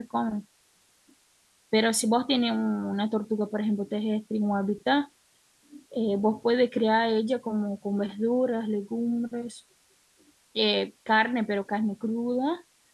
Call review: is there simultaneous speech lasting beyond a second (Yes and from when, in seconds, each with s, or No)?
No